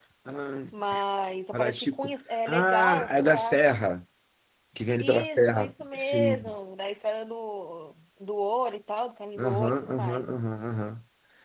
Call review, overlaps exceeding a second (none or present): present